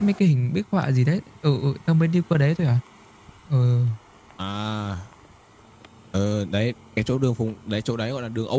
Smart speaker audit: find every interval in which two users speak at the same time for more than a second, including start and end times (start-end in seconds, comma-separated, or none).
none